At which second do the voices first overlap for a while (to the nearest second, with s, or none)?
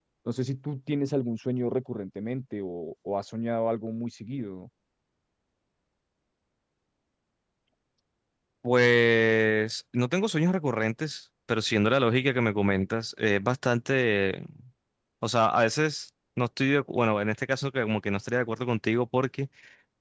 none